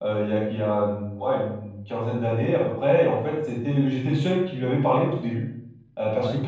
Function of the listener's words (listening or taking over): listening